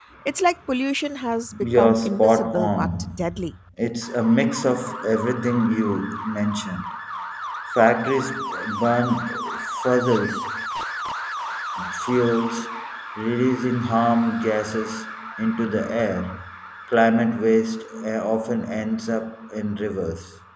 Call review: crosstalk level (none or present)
present